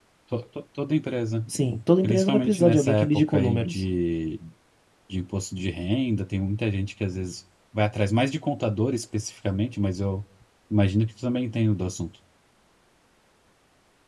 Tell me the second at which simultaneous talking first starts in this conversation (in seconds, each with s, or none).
2.0 s